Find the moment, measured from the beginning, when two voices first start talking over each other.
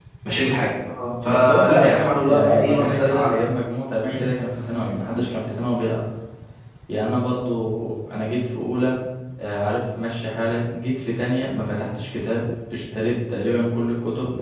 1.2 s

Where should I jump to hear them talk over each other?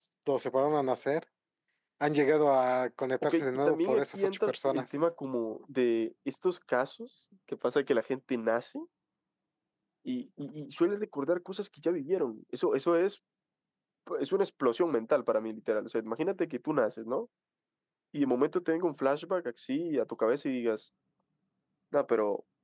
3.2 s

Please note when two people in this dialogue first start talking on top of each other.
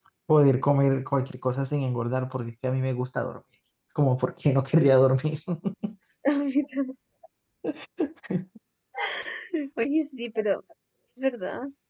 none

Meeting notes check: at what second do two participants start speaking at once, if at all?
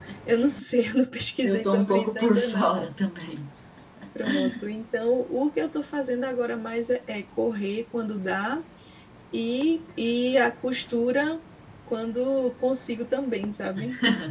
1.4 s

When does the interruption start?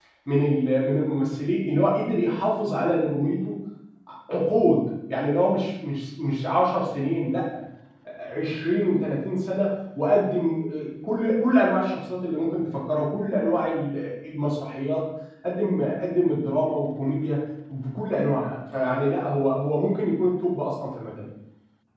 none

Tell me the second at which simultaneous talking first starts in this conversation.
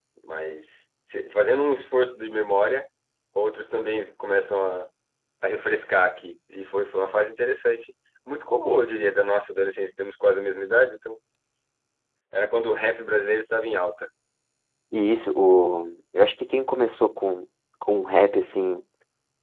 none

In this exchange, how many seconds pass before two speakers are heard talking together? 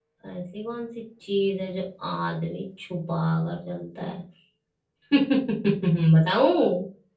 none

